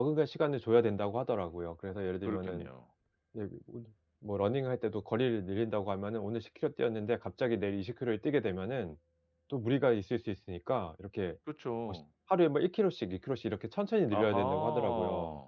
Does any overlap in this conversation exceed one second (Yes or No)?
Yes